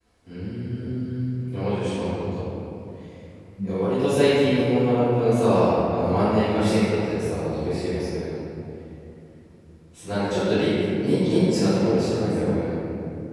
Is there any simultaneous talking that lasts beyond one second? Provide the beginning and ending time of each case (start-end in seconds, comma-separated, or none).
11.0-12.8